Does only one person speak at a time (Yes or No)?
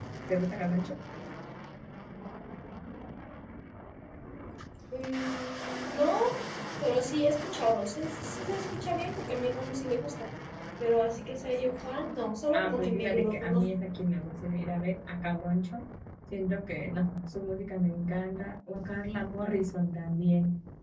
No